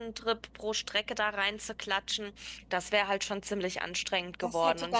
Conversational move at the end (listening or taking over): taking over